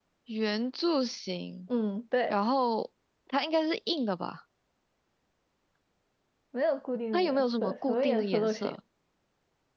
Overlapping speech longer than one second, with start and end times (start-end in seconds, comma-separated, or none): 7.1-8.8